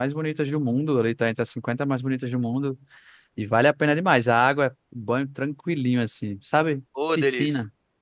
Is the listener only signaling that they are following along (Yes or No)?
No